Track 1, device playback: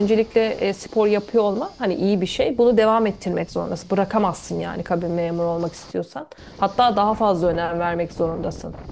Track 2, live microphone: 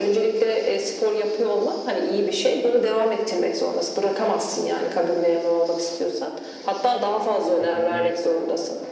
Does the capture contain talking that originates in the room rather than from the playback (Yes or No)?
Yes